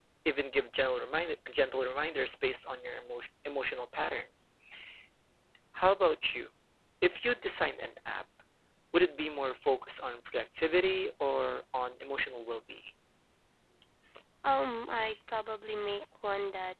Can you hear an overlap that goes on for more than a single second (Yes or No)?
No